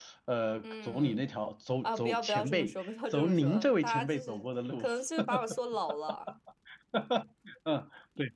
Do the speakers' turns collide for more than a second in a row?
Yes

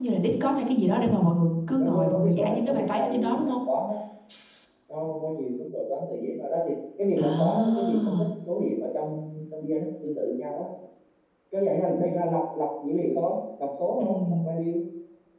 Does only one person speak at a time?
No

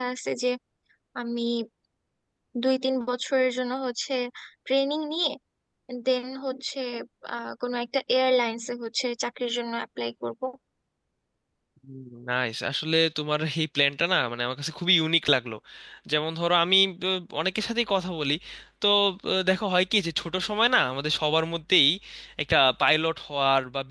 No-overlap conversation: Yes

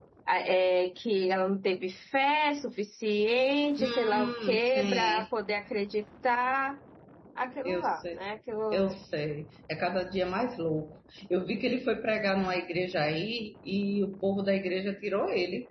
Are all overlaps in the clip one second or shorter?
No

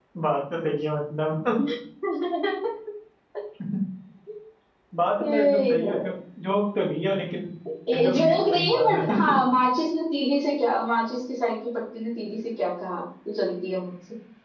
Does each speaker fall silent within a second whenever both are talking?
No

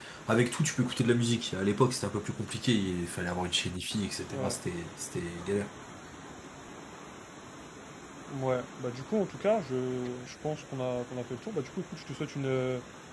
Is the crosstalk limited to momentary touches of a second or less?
Yes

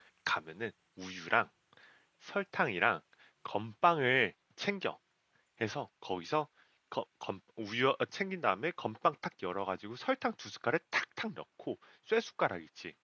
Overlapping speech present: No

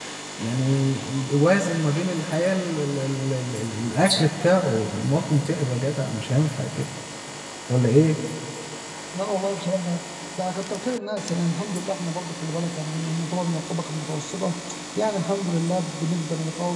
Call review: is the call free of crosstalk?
Yes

